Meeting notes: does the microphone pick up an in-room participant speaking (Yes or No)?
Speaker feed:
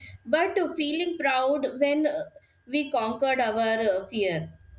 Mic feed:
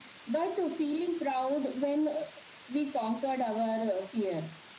No